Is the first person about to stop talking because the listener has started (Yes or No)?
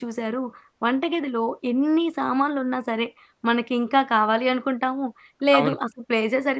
No